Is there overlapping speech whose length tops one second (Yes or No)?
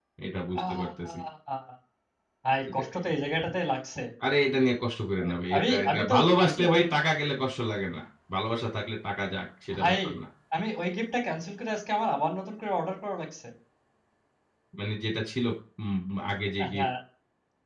Yes